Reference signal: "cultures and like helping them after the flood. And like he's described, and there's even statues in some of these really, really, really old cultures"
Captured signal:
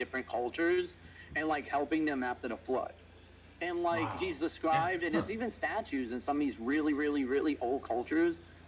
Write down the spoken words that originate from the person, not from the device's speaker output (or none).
Wow. Yeah. Huh.